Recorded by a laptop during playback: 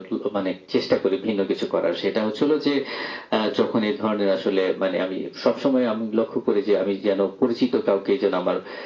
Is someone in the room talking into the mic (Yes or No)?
No